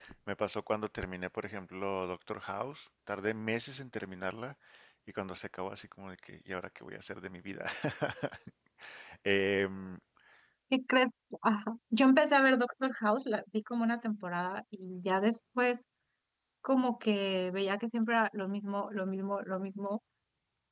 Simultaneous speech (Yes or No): No